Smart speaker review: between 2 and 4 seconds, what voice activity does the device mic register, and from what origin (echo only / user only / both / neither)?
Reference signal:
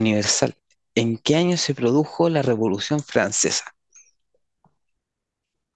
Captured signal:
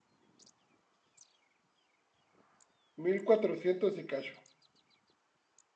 user only